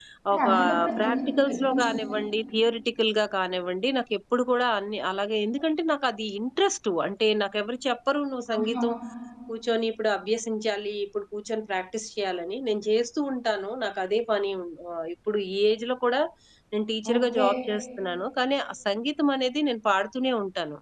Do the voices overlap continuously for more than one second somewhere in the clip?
Yes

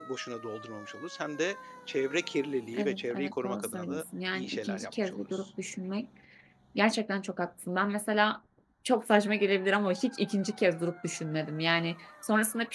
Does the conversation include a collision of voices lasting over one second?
Yes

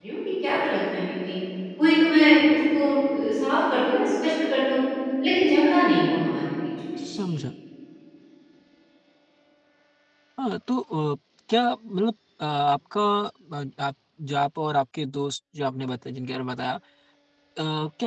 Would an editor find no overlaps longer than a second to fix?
Yes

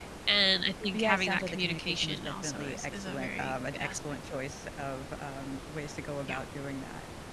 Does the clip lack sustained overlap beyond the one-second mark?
No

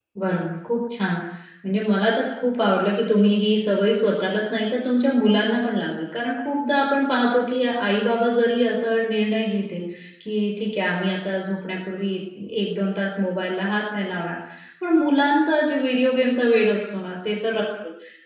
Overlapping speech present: No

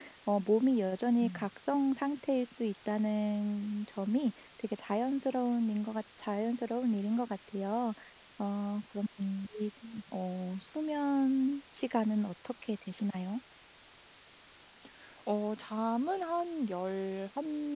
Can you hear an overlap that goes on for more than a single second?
No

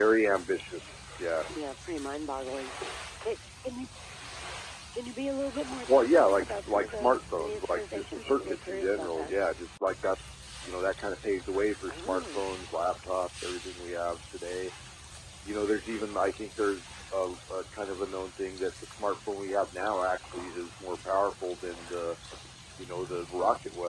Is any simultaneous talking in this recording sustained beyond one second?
Yes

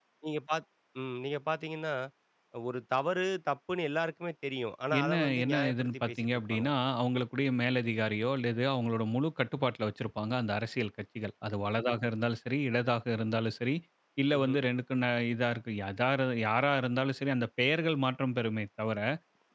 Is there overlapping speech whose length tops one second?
Yes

